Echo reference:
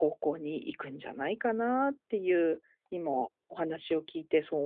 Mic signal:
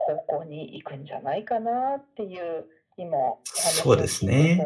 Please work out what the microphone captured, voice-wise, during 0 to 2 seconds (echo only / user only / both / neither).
echo only